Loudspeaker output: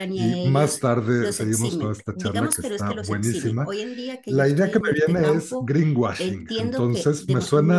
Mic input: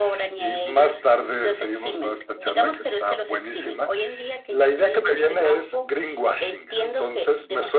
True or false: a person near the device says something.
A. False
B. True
A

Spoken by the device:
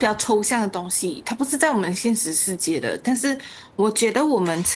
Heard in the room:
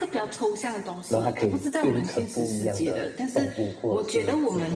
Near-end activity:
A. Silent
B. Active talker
B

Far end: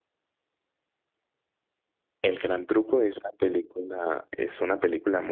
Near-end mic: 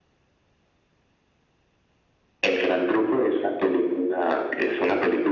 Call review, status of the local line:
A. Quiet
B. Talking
A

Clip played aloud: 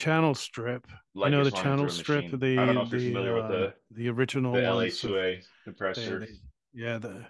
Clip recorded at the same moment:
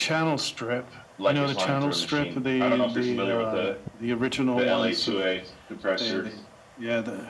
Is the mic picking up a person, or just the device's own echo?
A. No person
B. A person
A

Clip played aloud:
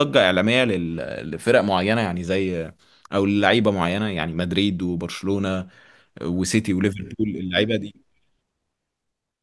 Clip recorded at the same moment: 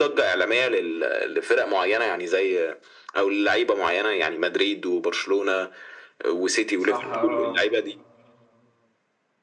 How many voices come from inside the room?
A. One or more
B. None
A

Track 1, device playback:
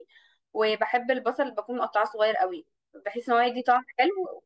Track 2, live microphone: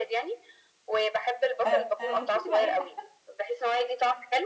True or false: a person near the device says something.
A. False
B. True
B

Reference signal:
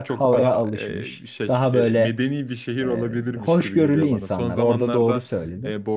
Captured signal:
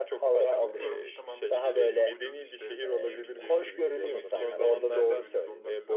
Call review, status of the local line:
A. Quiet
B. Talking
B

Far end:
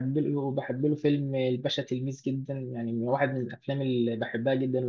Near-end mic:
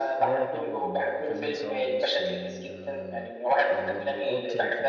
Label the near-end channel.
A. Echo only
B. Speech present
B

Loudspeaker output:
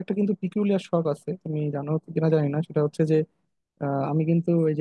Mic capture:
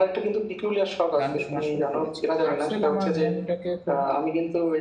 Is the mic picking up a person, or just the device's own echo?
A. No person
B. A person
B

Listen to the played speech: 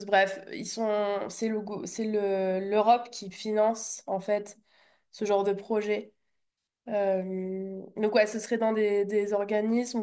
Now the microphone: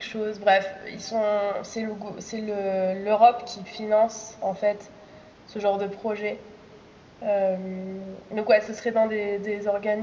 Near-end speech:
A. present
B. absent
B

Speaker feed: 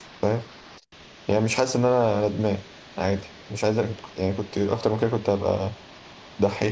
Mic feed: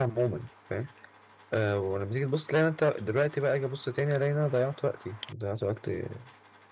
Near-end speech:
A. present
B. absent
A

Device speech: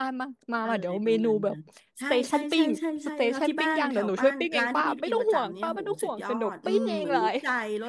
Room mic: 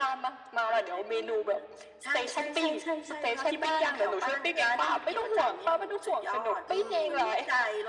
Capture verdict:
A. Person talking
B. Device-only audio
B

